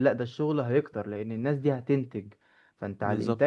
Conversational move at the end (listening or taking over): listening